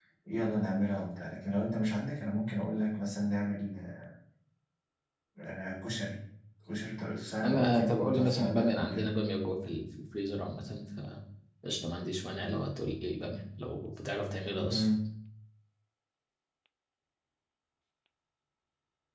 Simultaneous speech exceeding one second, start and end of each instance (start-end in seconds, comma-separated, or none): 7.4-9.1